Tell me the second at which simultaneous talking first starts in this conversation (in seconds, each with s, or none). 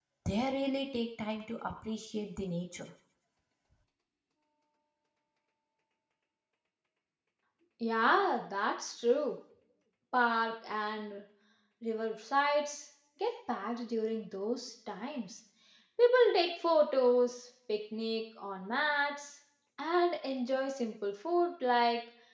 none